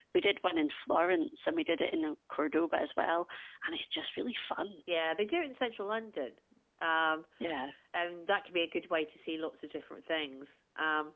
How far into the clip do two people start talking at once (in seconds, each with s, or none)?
none